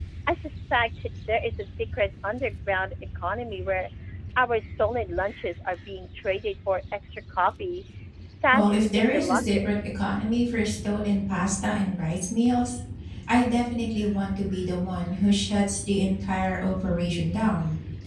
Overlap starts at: 8.5 s

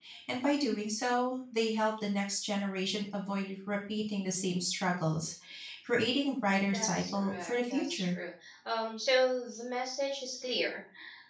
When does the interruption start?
6.7 s

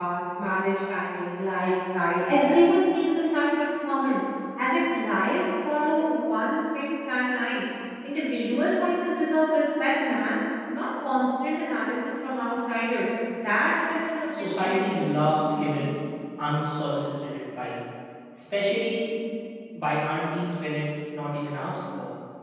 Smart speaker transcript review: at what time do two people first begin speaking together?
14.3 s

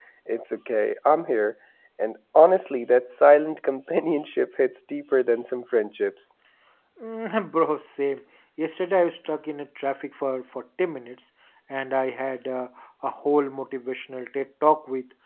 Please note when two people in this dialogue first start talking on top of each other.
none

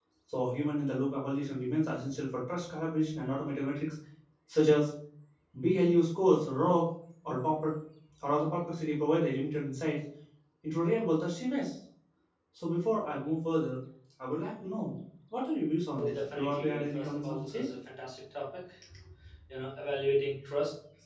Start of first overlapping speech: 16.0 s

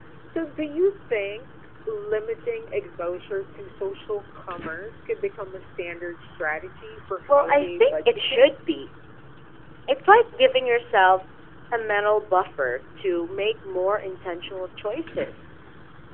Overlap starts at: 7.3 s

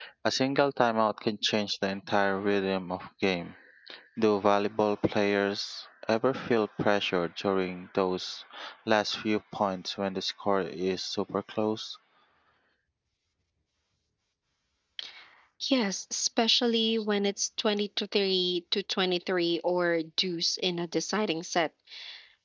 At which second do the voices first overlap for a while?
none

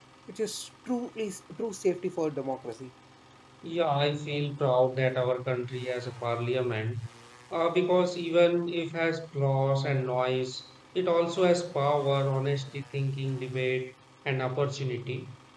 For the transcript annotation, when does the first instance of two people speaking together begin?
none

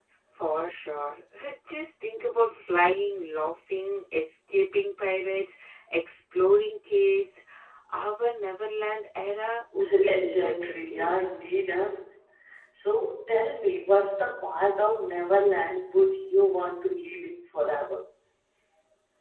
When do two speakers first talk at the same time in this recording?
9.9 s

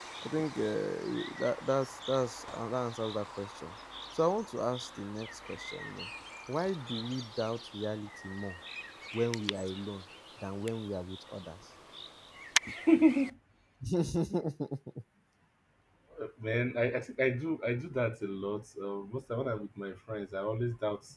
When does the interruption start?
none

